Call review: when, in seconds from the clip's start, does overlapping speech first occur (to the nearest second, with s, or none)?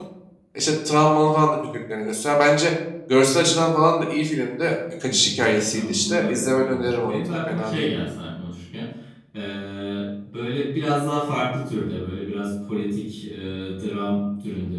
5 s